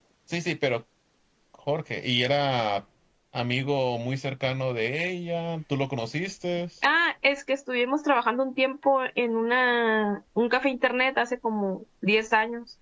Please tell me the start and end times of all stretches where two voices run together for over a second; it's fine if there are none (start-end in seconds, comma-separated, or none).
none